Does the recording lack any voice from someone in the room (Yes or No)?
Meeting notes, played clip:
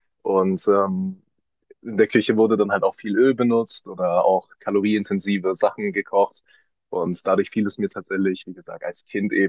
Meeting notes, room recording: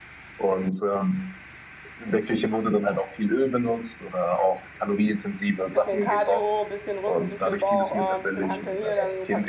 No